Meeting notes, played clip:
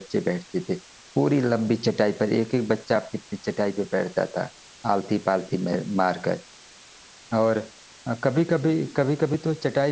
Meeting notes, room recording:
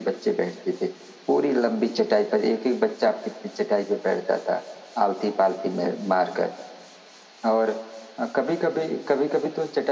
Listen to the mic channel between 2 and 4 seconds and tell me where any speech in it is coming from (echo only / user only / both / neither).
echo only